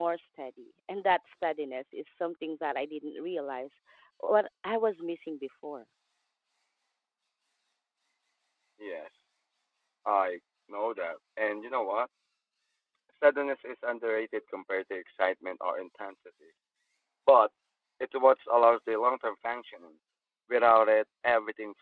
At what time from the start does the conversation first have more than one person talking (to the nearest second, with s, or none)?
none